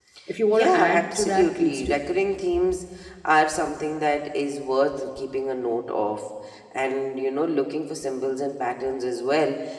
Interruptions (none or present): present